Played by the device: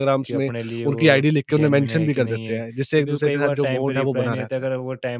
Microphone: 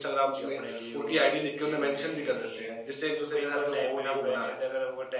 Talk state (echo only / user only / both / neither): echo only